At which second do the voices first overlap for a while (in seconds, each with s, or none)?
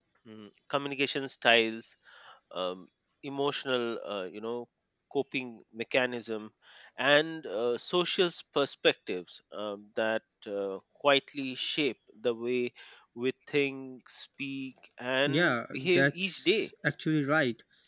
15.3 s